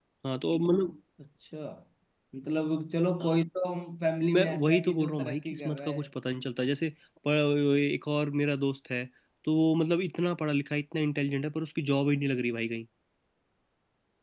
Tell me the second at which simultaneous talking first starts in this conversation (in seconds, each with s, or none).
4.2 s